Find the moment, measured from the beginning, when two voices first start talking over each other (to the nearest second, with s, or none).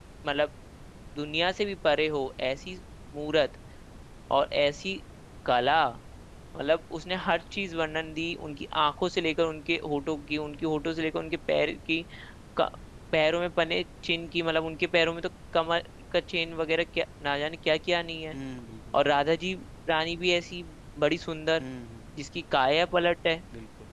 none